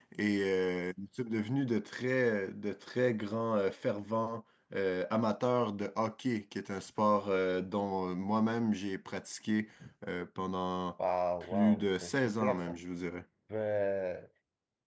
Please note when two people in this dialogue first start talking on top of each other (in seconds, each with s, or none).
11.5 s